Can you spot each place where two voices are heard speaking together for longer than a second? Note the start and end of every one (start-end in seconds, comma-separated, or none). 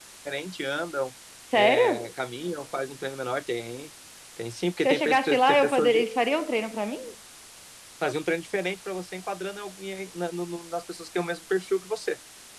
4.8-6.0